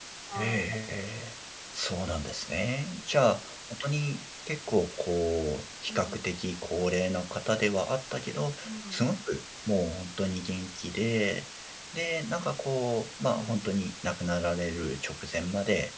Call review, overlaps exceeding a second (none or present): none